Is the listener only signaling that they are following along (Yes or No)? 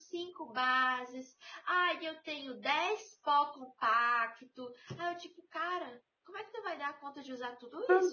No